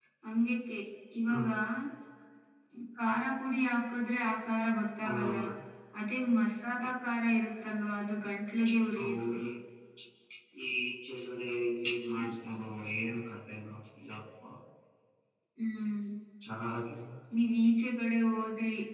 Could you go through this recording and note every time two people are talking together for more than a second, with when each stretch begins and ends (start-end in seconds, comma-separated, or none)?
none